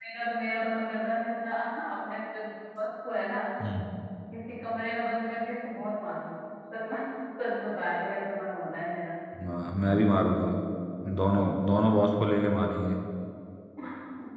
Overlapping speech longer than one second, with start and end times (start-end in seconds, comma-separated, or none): none